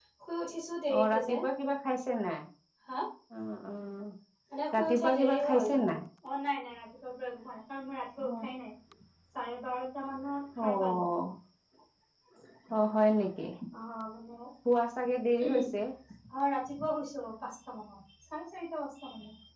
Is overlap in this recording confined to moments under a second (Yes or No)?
No